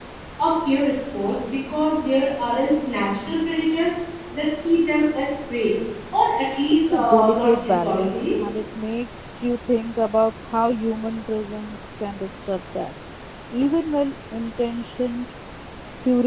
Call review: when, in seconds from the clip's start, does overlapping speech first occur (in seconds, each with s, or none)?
6.8 s